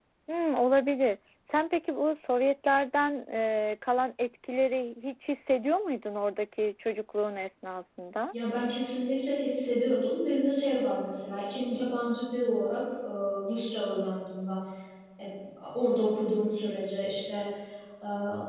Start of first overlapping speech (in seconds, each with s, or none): none